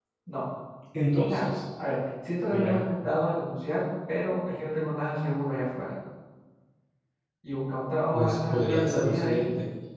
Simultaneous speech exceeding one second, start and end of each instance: 8.1-9.4

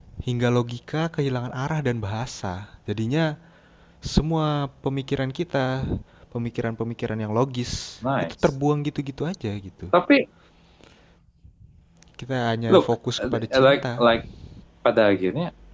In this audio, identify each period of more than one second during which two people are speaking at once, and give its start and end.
12.7-14.1

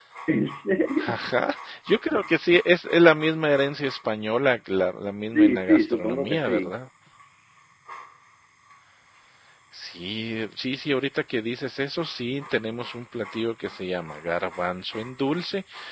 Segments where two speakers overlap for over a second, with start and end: 5.3-6.7

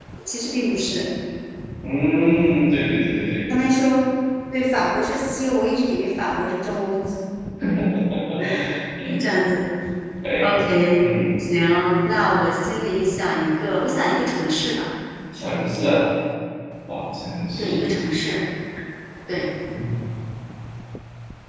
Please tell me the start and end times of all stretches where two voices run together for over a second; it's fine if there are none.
none

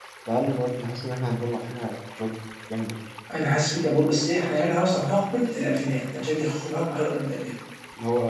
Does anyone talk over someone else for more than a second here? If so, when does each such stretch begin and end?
none

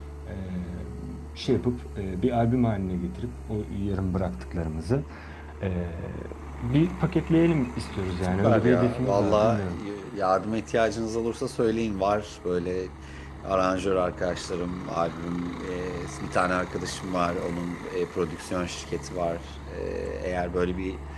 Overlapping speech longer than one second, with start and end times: 8.2-9.7

